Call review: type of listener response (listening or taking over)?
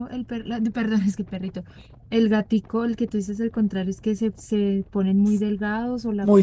taking over